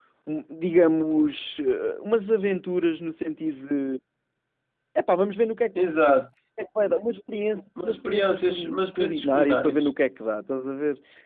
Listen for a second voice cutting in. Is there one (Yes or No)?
Yes